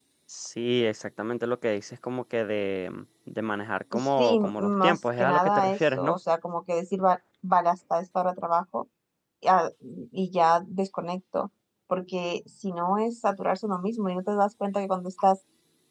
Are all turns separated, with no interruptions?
No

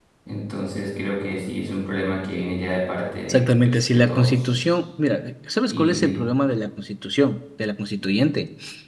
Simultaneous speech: Yes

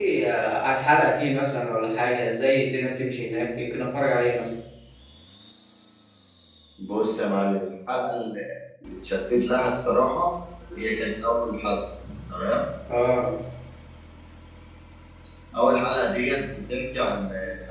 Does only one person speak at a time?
Yes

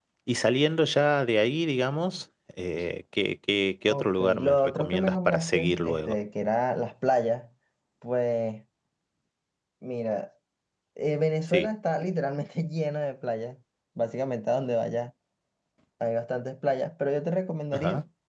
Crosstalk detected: Yes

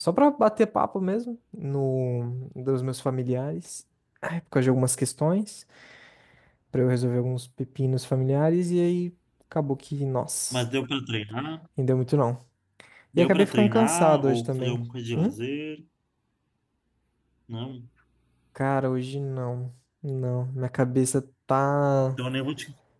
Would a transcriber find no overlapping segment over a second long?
No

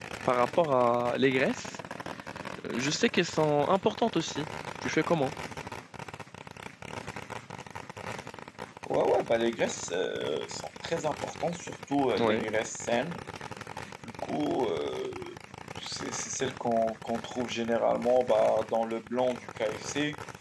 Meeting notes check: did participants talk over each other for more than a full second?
No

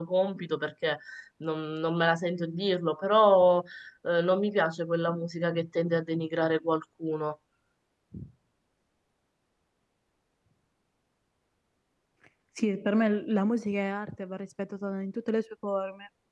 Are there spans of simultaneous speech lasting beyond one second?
No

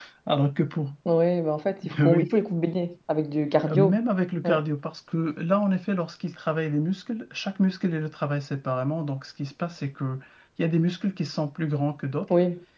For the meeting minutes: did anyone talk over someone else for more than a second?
No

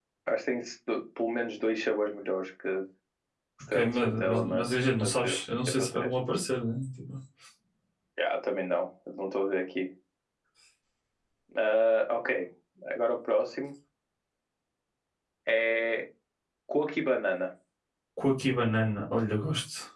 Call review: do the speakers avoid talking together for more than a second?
No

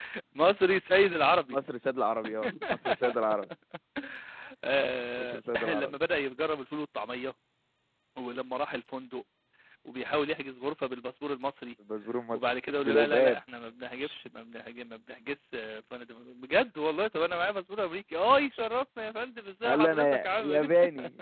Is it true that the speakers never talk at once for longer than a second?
No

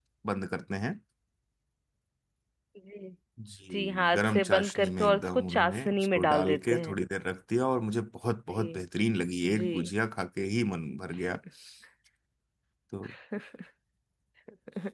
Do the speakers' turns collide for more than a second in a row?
Yes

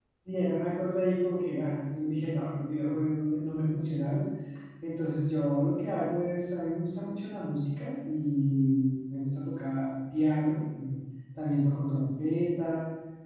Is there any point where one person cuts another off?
No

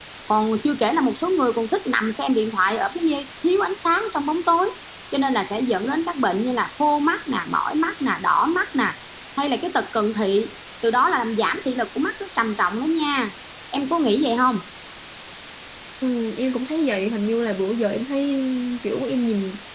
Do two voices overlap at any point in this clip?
No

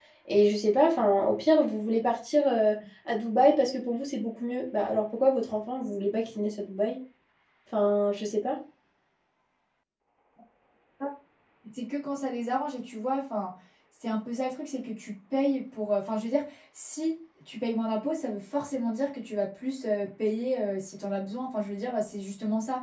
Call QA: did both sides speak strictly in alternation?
Yes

